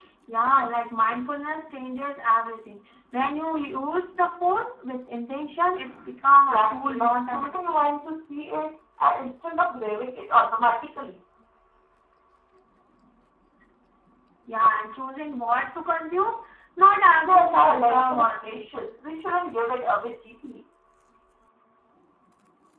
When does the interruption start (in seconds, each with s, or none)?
6.3 s